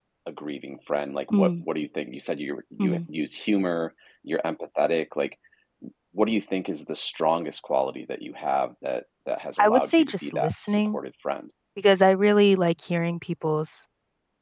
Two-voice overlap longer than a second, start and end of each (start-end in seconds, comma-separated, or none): 9.6-11.0